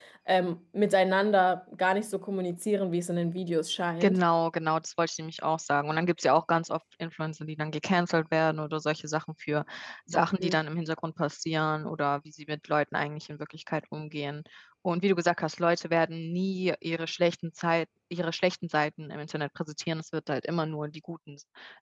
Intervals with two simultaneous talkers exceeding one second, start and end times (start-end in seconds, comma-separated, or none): none